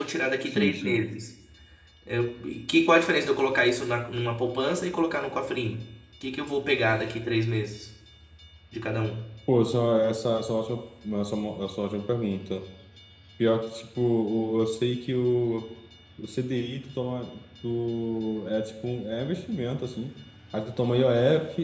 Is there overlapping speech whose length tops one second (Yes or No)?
No